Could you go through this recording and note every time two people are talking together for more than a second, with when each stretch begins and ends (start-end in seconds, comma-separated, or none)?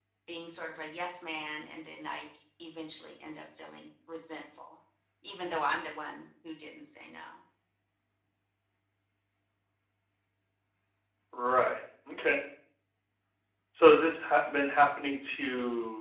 none